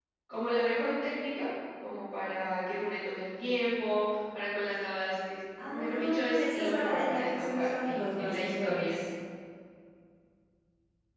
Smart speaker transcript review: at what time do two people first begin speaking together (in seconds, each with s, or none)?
5.6 s